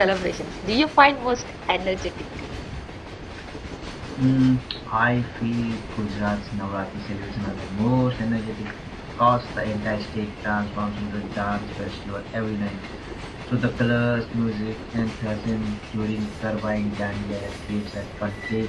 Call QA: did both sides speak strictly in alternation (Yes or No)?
Yes